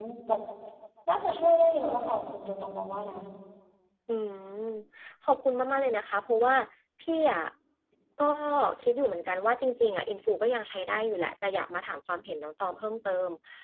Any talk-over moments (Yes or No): No